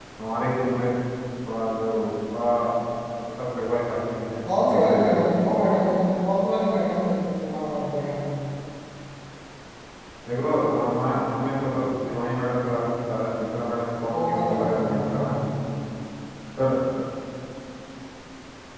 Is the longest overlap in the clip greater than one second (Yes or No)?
Yes